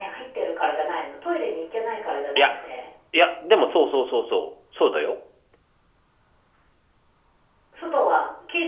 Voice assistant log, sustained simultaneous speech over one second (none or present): none